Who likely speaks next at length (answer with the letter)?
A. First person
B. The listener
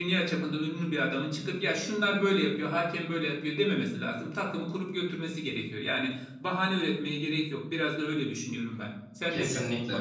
B